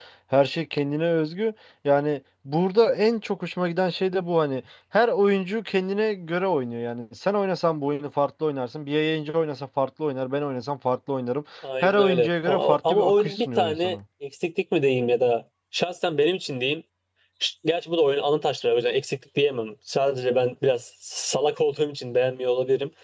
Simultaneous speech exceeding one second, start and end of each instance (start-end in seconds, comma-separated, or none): 11.8-14.0